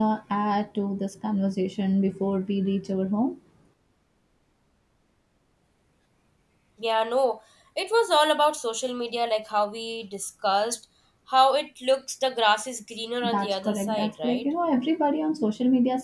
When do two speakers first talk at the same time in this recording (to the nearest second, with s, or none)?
13 s